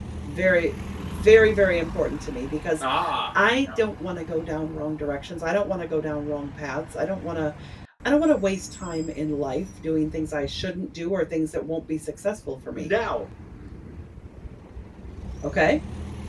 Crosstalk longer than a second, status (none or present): none